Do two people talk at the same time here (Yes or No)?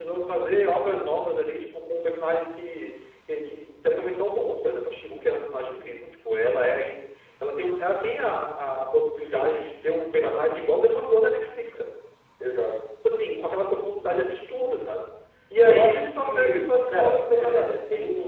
Yes